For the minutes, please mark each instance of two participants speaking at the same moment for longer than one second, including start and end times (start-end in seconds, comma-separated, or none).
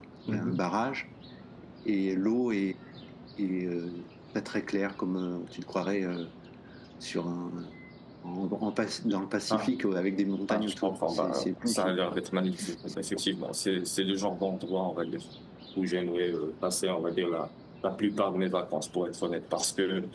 10.5-12.0